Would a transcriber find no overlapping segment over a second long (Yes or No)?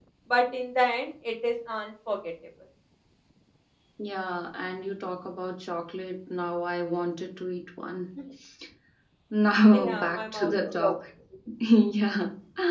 No